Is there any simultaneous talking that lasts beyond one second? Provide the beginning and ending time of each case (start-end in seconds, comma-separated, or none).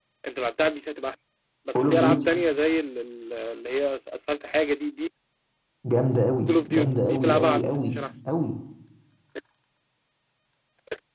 6.5-8.0